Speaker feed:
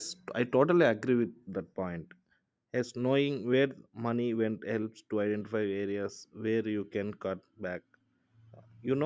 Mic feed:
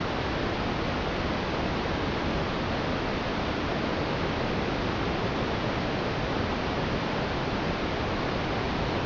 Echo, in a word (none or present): none